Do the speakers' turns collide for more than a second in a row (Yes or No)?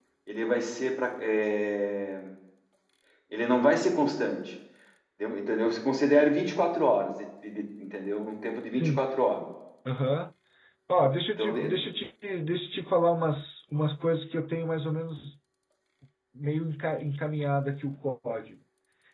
No